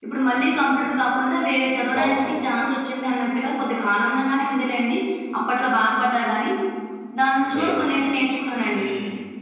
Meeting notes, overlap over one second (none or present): none